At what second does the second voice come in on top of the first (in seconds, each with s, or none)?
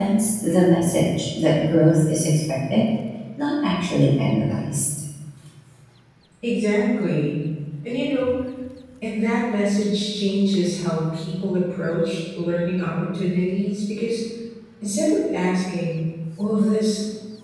none